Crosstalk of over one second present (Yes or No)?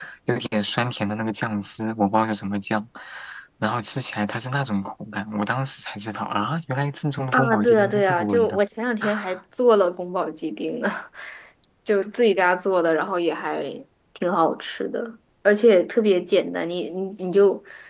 Yes